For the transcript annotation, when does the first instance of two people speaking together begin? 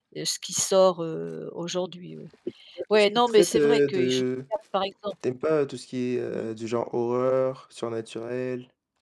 3 s

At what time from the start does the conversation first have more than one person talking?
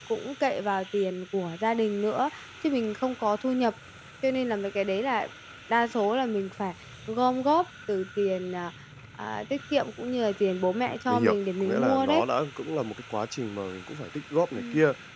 11 s

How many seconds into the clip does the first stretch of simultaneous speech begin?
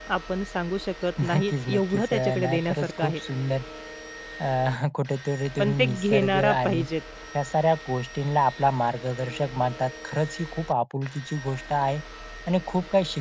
1 s

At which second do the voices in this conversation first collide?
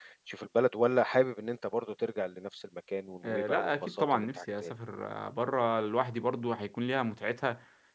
3 s

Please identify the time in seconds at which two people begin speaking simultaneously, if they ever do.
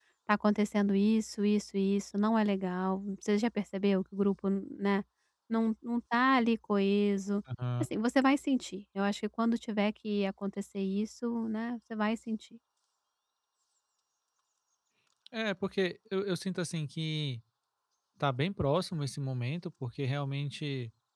none

